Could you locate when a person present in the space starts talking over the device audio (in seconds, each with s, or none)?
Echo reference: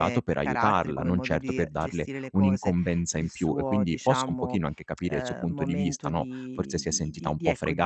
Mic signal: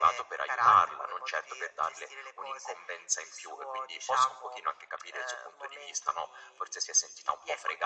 none